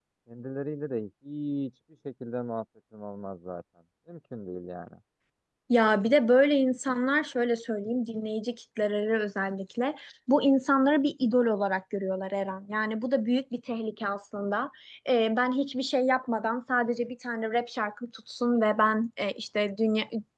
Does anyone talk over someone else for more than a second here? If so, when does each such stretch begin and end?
none

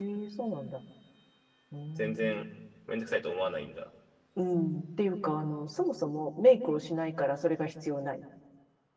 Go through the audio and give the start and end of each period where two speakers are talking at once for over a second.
none

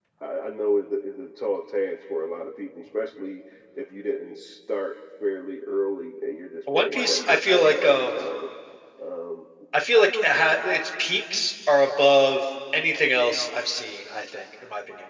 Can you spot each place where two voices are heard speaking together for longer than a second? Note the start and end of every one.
6.7-8.2

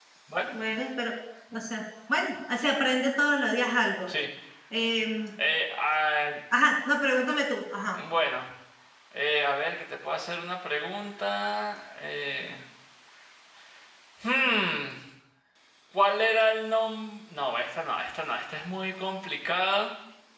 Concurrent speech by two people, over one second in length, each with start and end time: none

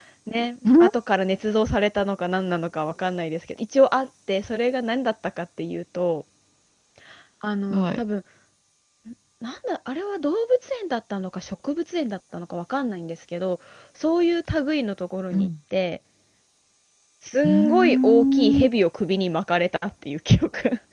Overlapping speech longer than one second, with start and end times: 17.4-18.7

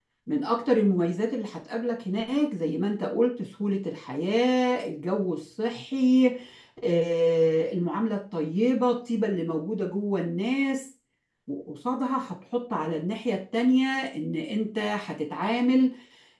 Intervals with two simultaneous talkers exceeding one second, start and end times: none

